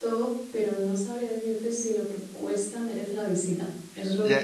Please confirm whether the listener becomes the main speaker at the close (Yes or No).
Yes